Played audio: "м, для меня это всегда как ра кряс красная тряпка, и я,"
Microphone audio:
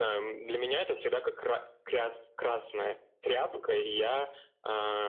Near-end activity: none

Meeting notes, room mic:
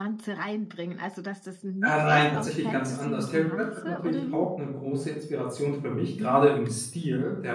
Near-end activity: present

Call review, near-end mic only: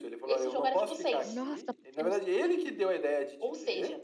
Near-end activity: present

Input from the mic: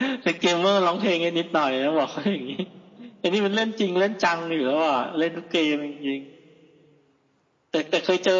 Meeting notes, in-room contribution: none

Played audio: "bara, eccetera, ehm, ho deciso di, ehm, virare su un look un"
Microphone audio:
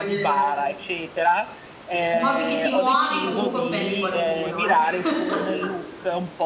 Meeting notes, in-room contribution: present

